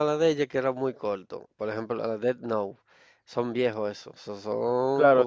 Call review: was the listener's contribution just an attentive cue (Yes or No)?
No